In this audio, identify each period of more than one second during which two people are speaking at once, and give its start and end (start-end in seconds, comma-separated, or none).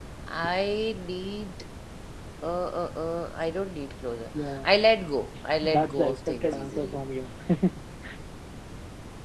5.6-7.0